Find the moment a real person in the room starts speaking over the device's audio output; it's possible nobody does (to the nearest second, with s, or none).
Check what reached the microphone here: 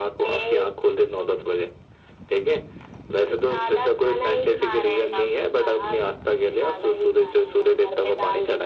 none